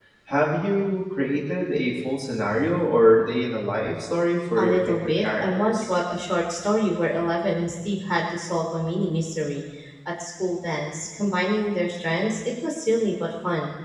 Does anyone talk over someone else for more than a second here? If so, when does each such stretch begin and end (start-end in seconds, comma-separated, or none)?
4.6-5.9